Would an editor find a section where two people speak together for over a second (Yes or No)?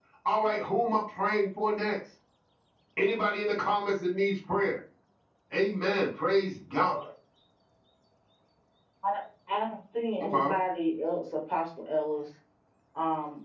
No